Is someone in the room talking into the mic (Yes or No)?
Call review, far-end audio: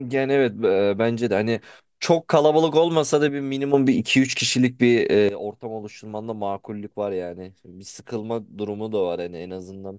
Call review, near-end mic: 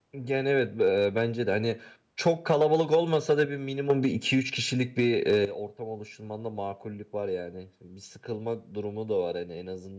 No